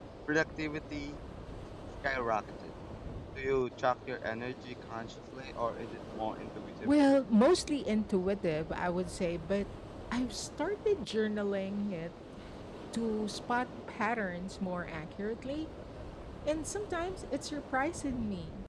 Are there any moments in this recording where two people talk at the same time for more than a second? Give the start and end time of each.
none

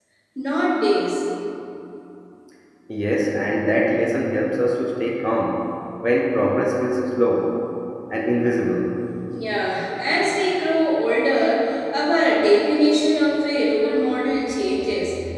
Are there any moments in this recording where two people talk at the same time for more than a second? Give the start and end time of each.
none

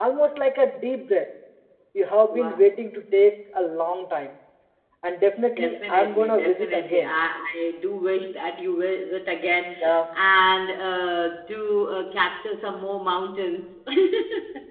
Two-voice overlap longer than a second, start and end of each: 5.6-7.1

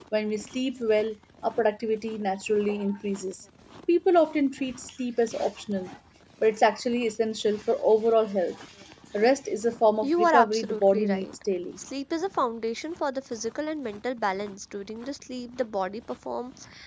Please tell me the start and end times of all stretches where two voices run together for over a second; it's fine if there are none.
10.0-11.2

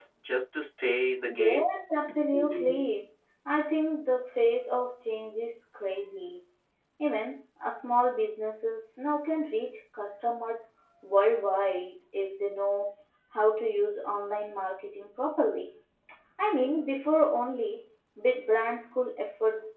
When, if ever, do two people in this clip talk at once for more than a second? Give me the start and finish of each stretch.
none

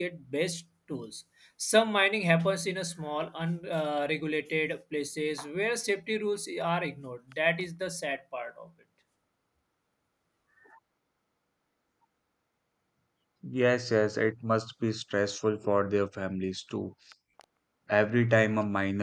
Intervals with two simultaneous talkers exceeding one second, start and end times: none

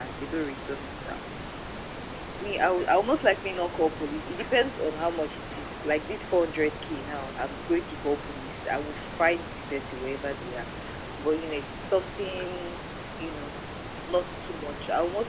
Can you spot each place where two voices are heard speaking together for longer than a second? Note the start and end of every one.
none

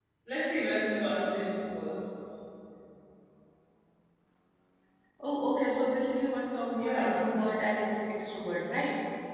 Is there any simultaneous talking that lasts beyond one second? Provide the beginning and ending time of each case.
none

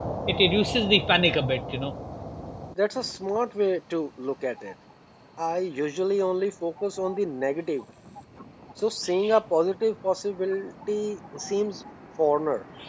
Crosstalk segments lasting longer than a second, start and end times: none

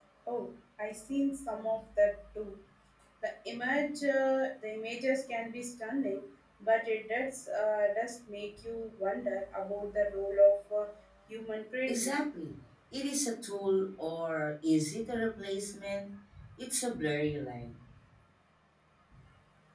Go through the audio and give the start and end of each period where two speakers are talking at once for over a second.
none

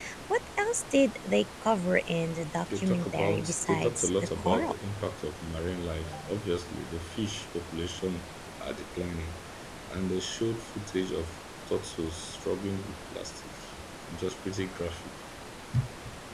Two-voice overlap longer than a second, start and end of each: 2.7-4.7

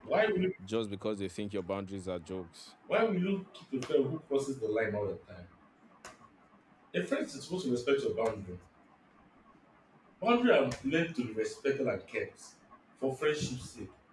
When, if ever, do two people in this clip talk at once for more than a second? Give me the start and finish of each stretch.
none

